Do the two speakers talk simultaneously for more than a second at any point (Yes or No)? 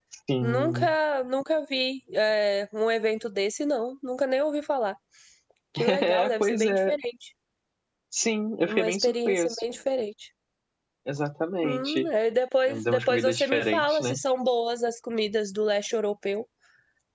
Yes